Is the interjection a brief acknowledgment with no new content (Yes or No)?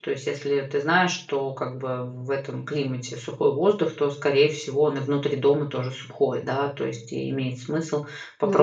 Yes